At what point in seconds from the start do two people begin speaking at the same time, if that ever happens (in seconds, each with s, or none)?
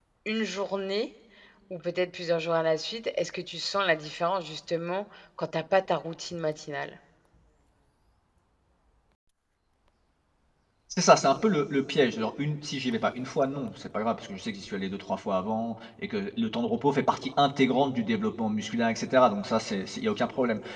none